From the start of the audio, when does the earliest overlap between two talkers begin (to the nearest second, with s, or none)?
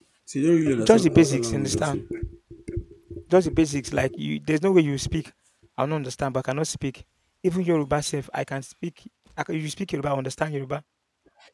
1 s